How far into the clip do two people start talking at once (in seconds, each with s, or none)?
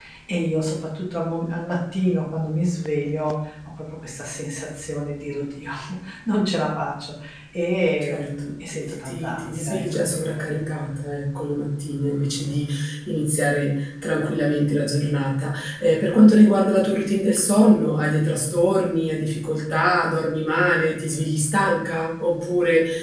8.0 s